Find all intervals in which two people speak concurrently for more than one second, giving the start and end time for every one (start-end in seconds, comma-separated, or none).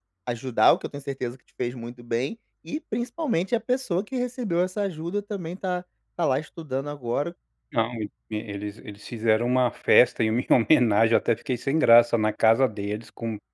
none